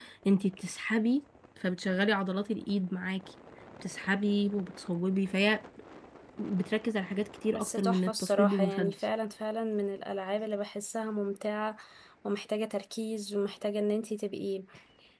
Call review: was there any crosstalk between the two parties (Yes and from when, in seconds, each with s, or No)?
Yes, from 7.5 s